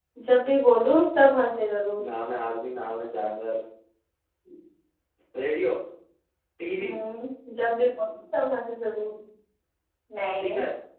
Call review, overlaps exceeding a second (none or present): none